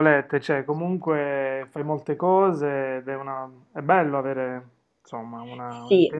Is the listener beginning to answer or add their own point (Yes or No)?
Yes